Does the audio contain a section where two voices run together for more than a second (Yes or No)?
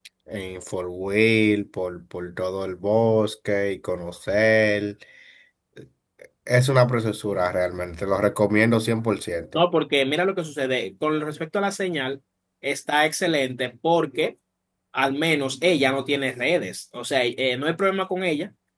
No